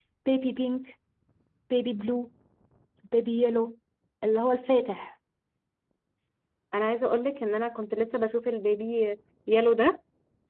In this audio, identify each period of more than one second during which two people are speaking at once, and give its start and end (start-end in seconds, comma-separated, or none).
none